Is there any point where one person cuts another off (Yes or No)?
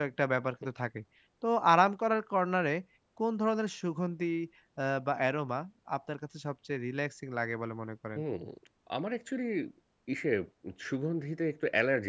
No